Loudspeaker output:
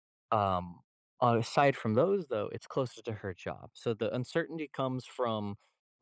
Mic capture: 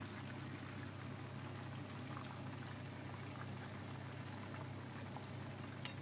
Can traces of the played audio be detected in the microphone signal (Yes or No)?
No